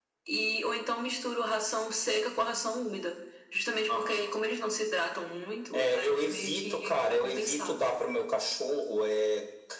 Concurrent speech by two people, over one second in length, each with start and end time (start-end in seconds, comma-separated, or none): 5.7-7.8